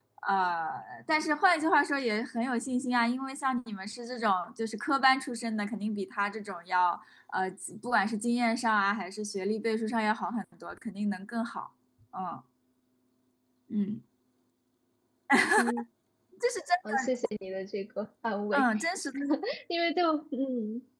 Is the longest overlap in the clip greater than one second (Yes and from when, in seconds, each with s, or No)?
No